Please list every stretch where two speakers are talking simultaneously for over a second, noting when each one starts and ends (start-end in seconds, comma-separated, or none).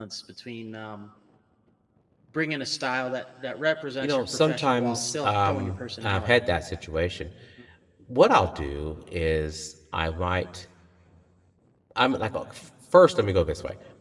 4.0-6.4